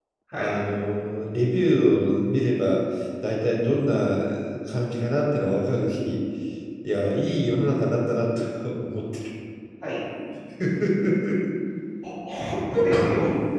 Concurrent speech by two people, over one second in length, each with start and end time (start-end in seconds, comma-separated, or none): none